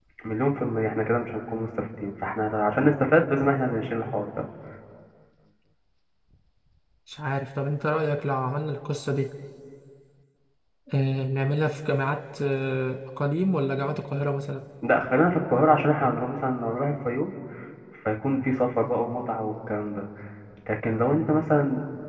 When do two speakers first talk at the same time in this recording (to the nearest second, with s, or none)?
none